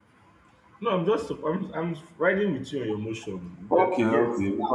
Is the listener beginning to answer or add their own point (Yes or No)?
Yes